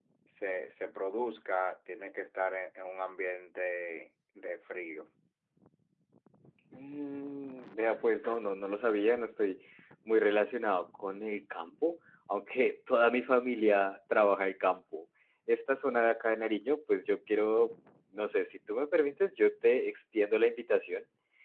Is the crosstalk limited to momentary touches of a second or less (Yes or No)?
Yes